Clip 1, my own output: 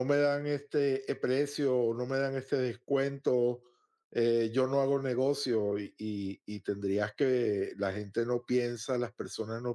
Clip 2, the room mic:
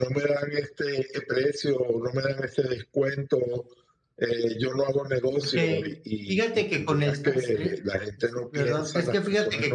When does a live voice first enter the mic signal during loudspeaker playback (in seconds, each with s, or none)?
5.4 s